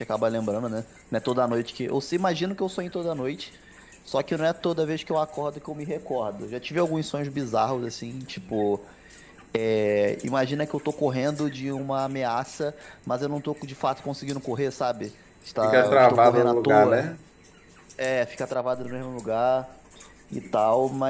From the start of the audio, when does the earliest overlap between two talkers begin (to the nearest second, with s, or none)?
16 s